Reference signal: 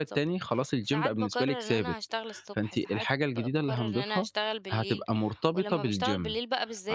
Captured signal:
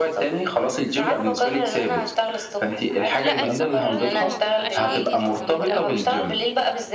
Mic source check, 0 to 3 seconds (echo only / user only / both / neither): echo only